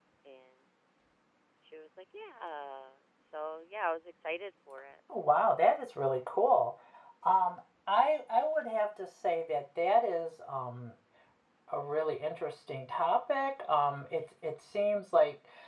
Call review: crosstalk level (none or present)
none